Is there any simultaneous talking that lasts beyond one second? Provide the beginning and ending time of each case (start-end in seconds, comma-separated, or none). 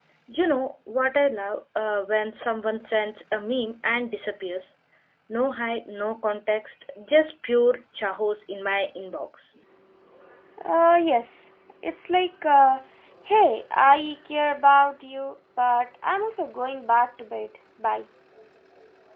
none